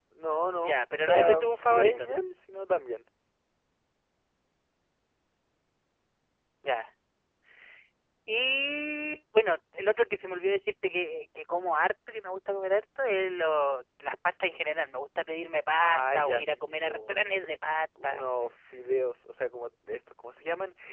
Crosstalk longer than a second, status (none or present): present